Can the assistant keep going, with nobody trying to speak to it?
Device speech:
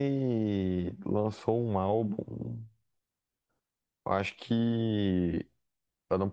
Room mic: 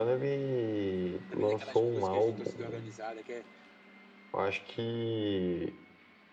No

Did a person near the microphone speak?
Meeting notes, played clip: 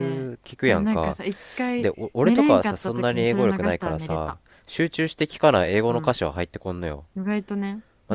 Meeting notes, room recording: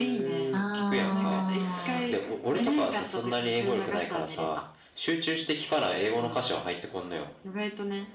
Yes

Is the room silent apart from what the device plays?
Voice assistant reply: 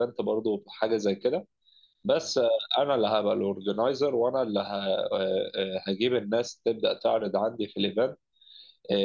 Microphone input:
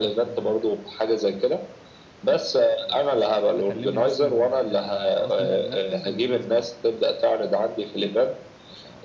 No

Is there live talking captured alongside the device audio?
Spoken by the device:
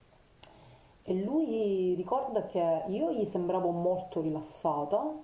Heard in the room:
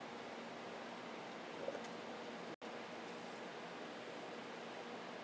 No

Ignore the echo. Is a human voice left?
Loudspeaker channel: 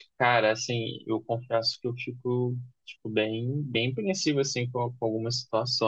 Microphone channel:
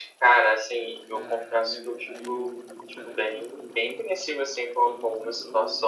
Yes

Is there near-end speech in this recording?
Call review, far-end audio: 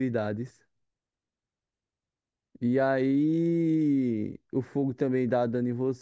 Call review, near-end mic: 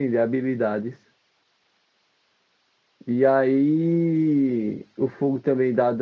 No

